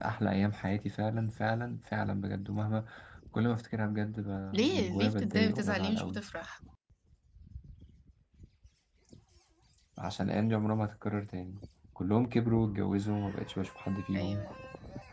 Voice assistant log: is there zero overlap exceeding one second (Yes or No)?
No